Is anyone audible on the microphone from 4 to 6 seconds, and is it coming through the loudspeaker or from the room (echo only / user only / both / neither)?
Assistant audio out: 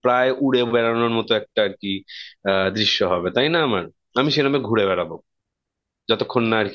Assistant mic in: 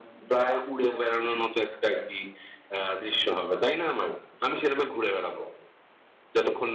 echo only